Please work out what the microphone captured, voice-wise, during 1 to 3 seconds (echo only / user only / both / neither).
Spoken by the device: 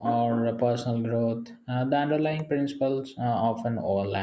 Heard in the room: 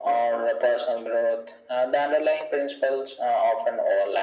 echo only